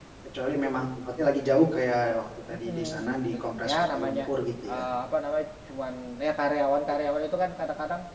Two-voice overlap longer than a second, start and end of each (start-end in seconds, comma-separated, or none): 2.5-4.2